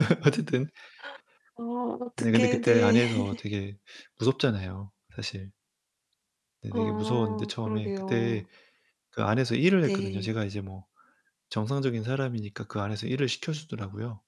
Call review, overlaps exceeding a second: present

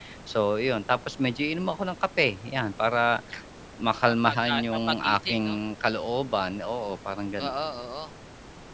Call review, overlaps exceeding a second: present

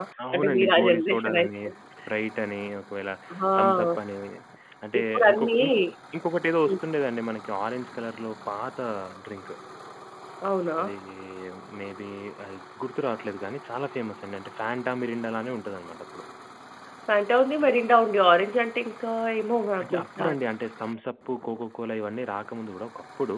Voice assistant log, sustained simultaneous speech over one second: present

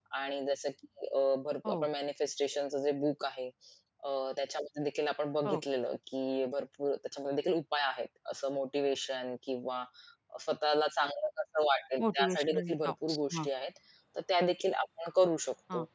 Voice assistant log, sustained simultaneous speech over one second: present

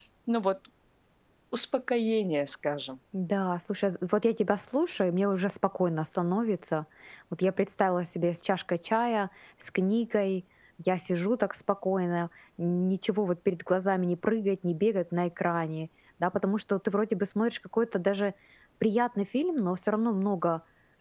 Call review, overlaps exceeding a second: none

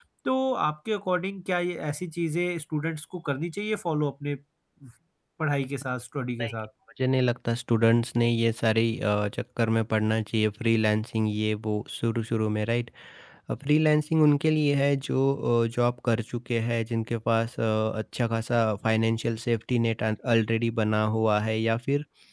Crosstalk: none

